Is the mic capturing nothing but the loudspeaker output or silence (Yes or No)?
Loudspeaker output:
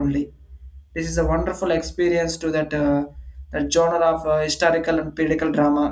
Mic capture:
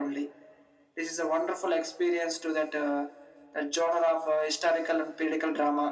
Yes